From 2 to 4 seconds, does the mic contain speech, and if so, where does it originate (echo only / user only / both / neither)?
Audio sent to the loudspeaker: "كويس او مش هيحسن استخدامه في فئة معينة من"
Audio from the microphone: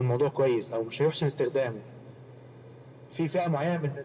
echo only